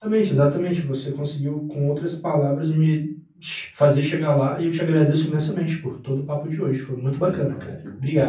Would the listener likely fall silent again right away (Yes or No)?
No